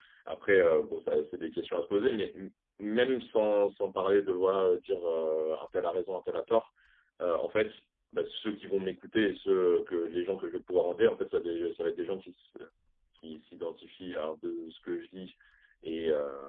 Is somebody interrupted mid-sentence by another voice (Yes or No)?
No